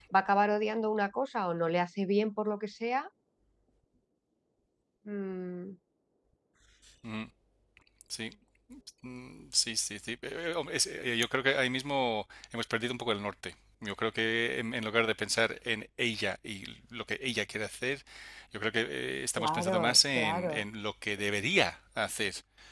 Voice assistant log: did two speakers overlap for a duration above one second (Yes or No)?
Yes